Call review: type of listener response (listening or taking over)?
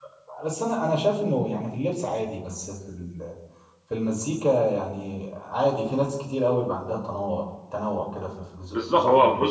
taking over